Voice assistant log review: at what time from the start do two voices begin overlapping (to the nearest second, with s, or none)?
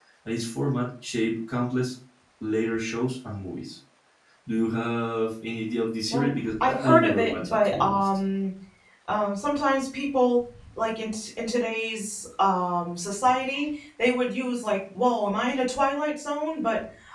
6 s